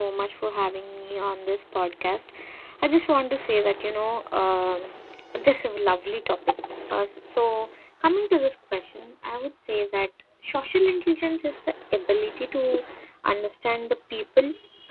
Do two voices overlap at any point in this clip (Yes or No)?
No